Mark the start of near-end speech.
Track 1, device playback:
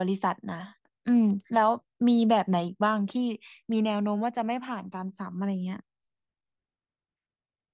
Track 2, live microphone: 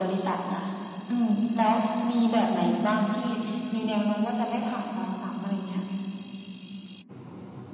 none

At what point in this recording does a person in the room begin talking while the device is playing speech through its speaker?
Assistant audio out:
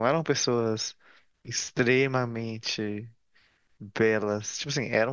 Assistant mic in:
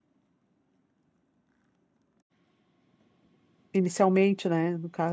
3.7 s

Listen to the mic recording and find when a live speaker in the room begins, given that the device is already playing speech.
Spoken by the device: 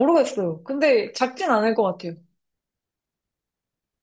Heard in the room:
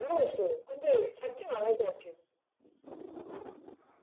none

